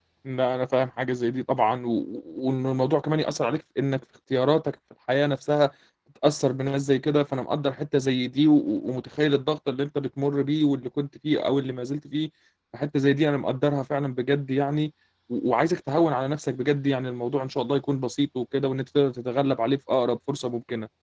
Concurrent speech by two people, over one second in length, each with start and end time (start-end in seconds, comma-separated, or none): none